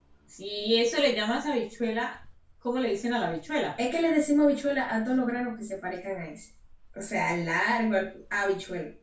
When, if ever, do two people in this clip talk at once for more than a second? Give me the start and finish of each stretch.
none

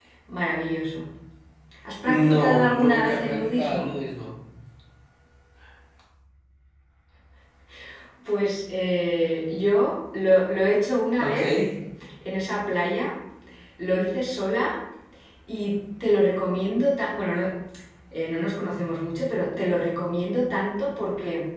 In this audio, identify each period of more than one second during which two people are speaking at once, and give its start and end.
2.1-3.9

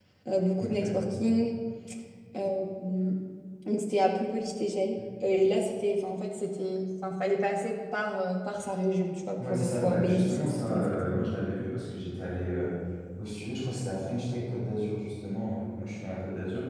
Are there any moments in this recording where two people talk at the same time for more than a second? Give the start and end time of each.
9.5-11.0

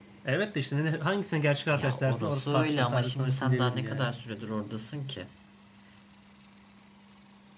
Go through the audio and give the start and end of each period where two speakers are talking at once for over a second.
1.7-4.1

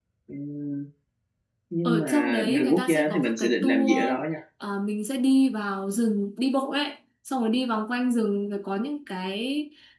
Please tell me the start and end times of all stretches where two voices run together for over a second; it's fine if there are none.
1.8-4.0

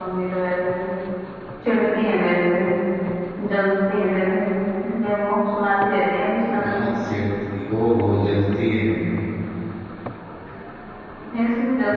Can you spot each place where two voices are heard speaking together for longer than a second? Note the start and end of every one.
none

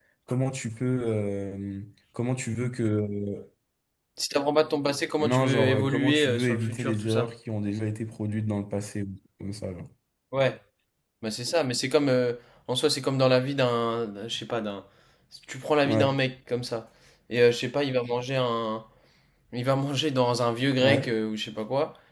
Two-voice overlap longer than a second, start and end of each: 5.2-7.3

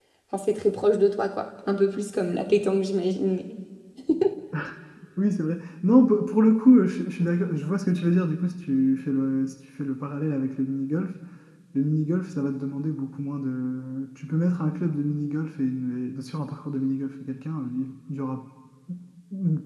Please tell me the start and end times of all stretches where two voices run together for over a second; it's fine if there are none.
none

